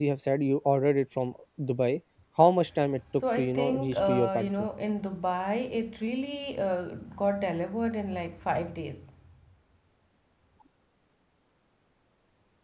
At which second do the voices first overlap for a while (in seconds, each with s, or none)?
3.2 s